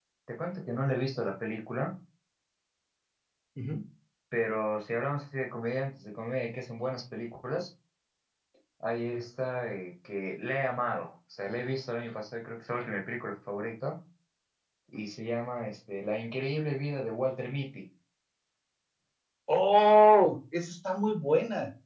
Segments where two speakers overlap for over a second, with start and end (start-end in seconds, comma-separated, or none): none